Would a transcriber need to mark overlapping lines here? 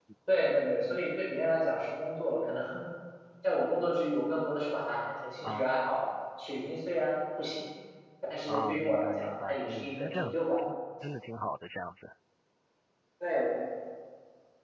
Yes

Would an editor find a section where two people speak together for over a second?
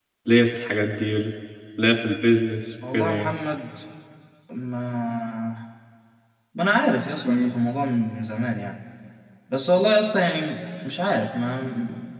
No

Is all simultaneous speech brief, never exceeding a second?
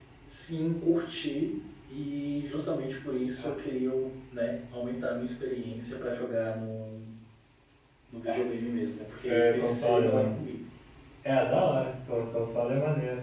No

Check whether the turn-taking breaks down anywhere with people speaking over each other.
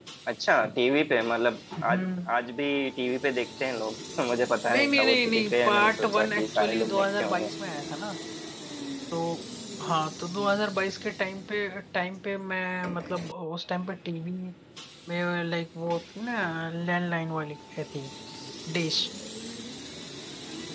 Yes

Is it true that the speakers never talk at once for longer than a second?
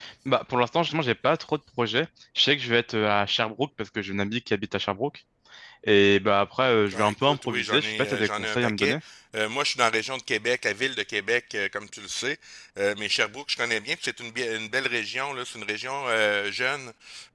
No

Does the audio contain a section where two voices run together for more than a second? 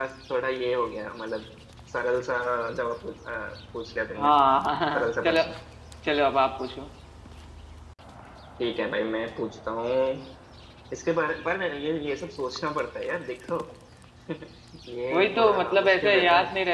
Yes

